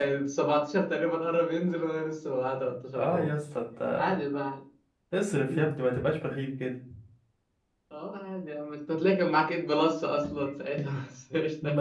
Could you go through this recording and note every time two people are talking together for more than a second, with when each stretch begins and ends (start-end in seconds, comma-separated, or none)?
none